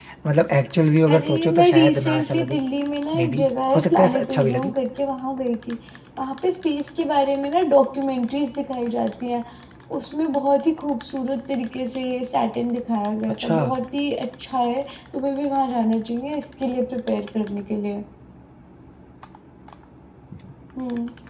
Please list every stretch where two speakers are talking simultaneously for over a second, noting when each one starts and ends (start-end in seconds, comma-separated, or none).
1.1-2.6, 3.2-4.7